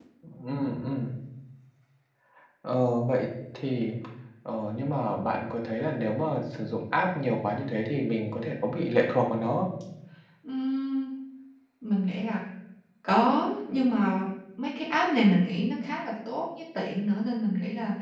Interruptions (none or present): none